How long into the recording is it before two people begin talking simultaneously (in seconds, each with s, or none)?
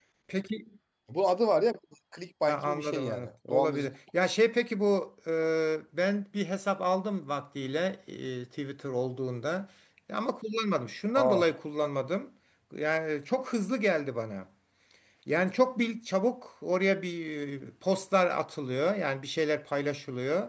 2.5 s